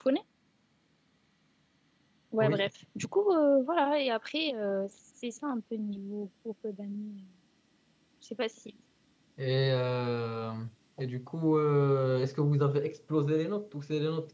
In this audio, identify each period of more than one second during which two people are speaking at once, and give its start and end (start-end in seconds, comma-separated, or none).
none